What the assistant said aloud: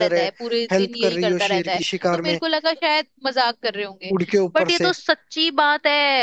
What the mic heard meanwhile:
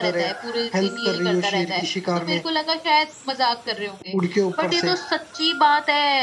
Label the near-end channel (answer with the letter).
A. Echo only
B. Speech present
A